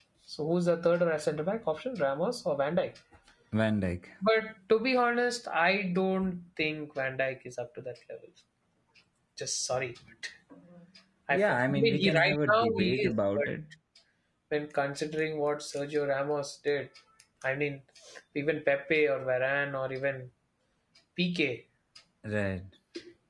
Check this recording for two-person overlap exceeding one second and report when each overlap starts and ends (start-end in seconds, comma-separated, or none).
11.3-13.5